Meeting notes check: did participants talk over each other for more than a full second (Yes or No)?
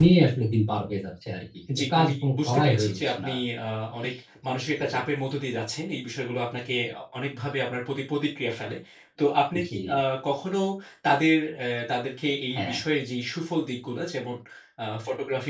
Yes